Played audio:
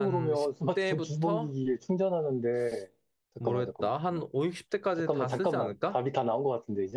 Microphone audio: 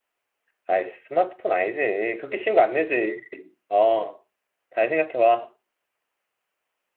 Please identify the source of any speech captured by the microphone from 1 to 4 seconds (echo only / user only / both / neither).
user only